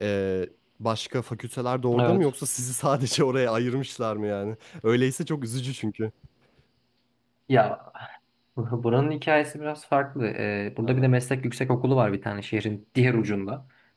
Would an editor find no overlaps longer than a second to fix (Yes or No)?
Yes